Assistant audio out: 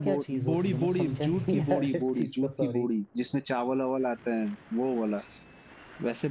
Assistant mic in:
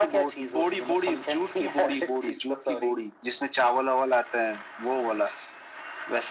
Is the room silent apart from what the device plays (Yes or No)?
Yes